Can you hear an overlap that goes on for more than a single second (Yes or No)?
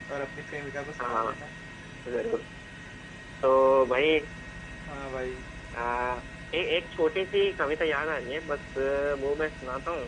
No